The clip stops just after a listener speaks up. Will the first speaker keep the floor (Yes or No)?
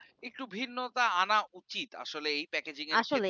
No